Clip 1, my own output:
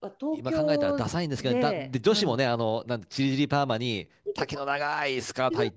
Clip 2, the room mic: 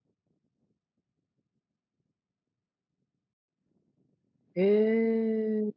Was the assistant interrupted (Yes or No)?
Yes